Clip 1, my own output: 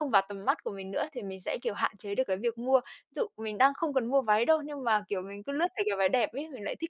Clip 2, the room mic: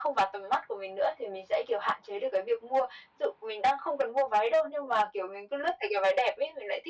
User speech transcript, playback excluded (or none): none